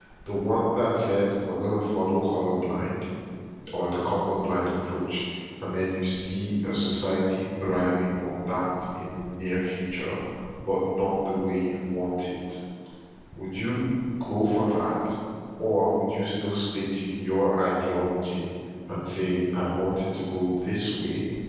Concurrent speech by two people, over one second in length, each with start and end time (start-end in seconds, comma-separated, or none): none